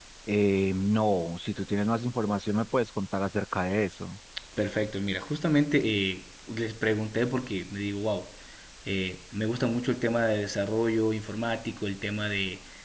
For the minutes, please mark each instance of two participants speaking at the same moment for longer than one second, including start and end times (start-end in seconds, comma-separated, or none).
none